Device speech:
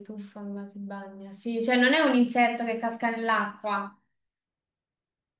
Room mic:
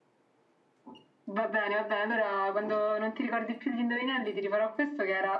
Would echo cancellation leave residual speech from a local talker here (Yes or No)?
Yes